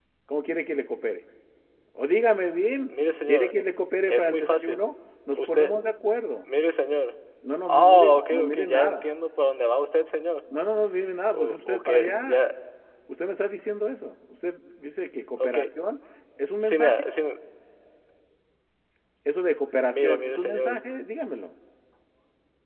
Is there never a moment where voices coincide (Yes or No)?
No